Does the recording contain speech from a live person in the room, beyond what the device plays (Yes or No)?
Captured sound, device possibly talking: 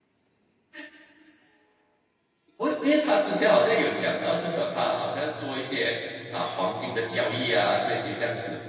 Yes